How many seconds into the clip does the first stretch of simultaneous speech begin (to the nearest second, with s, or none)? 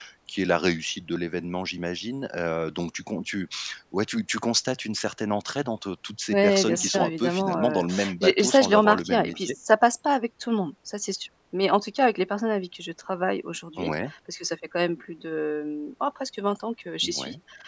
6 s